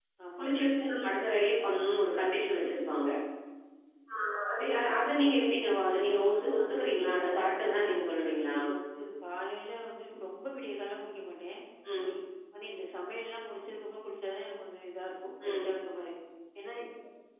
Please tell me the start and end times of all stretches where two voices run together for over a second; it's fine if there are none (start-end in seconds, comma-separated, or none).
5.7-8.0